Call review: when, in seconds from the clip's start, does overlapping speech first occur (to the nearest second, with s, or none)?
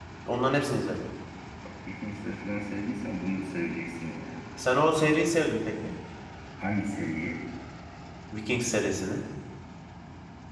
none